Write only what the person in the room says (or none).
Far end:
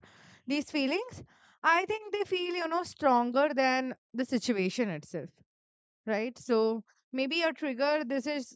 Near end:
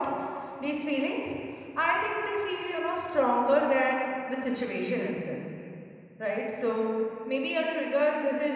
none